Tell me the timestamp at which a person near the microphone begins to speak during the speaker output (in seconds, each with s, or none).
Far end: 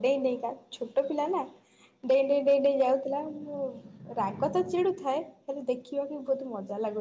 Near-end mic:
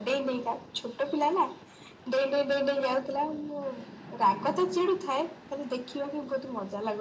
none